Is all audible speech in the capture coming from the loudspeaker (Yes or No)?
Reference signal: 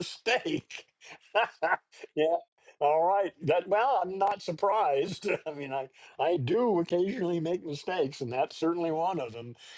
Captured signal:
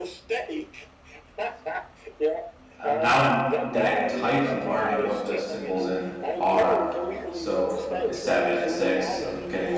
No